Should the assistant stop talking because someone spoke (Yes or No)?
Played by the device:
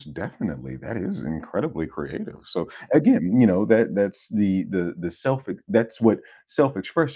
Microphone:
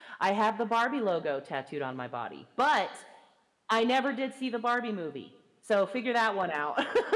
Yes